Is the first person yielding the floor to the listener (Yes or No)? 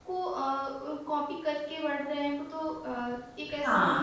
Yes